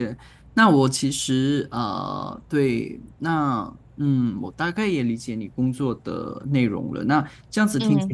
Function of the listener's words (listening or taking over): listening